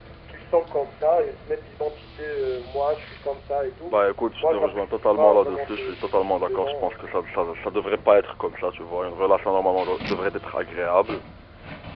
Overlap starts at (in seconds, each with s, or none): 4.4 s